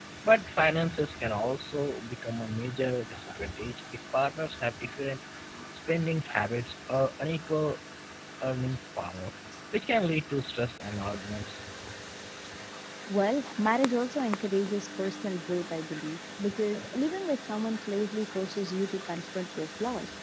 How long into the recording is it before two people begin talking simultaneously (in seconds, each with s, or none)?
none